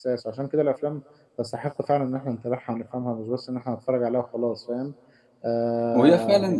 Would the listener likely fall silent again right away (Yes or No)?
No